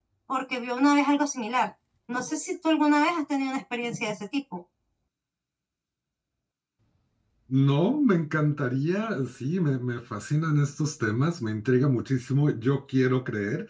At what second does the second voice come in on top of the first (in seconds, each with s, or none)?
none